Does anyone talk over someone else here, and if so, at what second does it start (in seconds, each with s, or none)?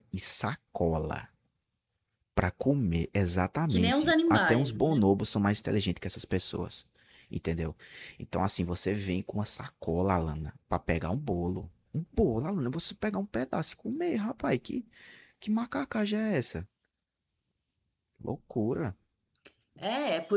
3.7 s